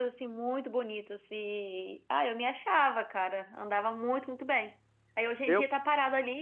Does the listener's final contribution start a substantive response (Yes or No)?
No